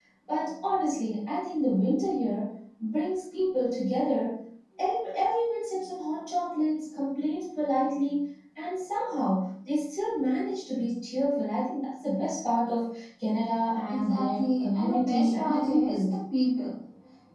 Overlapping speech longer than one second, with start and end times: 13.9-16.0

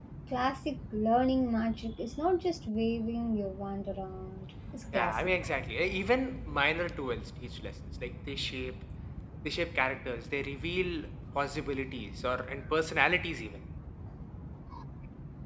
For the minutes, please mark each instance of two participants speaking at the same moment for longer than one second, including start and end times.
none

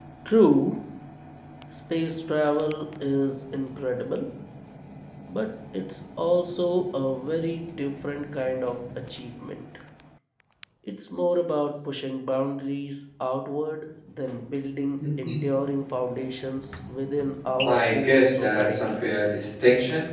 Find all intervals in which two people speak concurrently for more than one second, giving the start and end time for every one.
17.6-19.2

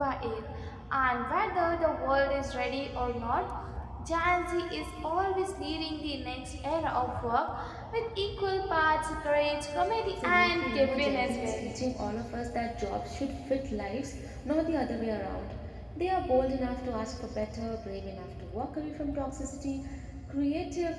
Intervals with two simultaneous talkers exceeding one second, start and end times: 10.2-11.7

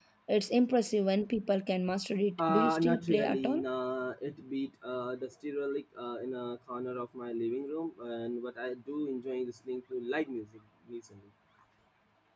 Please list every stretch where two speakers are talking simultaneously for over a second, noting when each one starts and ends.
2.4-3.6

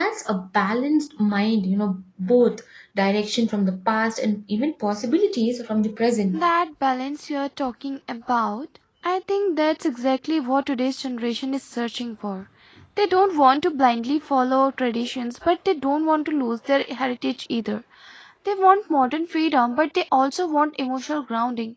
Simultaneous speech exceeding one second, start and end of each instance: none

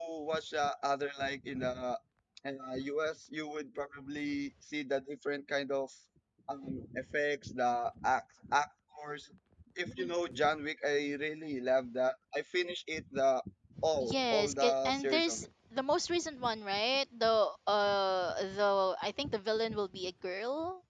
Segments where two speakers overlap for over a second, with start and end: 14.0-15.5

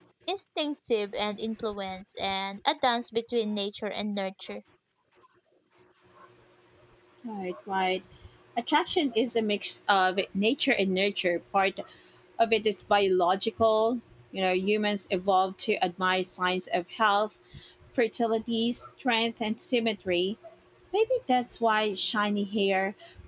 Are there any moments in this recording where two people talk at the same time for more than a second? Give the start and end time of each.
none

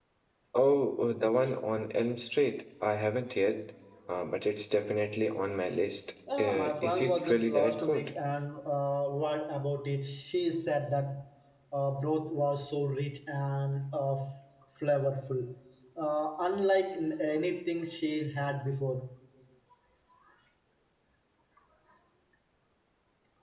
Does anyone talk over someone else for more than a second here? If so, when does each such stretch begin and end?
6.4-8.1

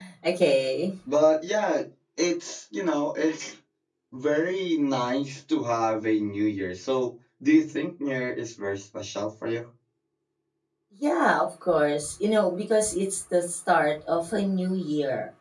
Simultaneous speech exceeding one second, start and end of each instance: none

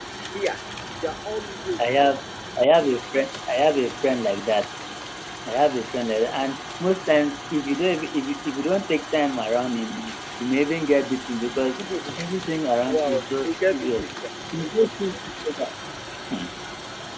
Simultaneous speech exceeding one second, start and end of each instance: 12.9-14.1

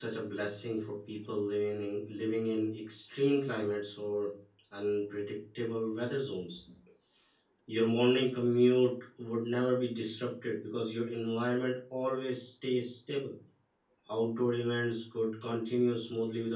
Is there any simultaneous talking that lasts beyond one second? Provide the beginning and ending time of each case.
none

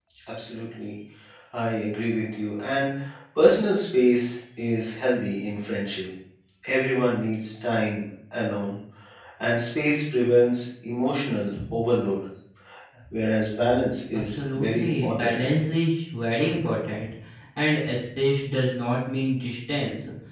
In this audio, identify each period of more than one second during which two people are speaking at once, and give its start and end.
14.1-15.3

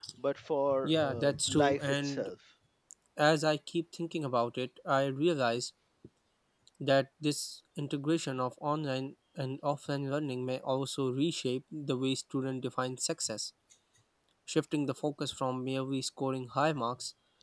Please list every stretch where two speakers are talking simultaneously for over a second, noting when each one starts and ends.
0.8-2.3

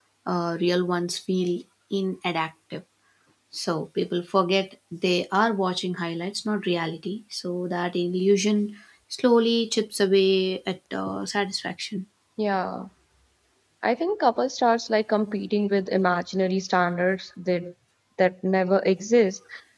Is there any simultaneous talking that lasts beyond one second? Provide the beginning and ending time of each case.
none

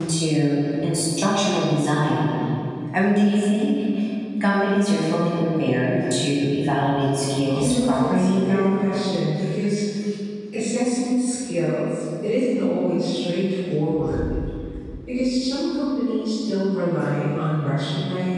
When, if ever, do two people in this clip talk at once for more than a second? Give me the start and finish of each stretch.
7.5-8.8

